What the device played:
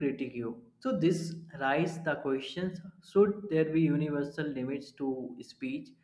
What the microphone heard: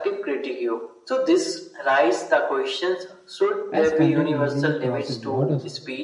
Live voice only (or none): as content easily crosses borders.